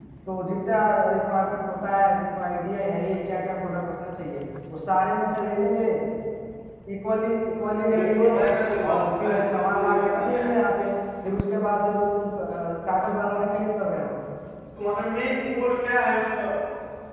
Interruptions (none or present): present